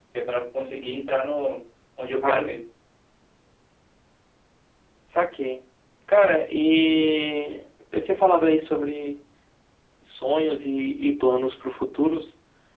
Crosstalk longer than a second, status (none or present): none